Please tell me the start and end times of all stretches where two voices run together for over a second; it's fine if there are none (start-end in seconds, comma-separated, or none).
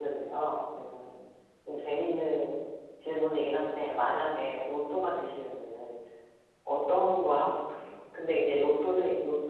none